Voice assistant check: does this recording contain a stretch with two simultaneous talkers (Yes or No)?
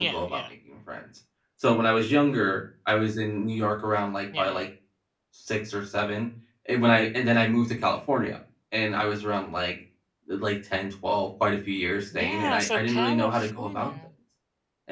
Yes